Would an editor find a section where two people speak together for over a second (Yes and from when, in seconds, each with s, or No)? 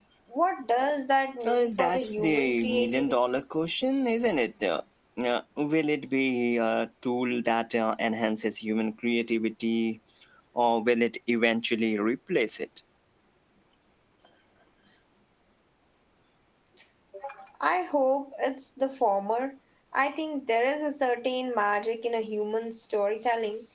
Yes, from 1.4 s